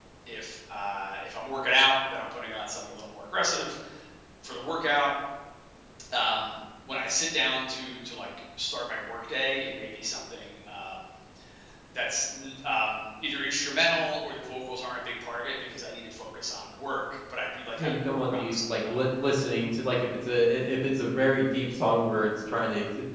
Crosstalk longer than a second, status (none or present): present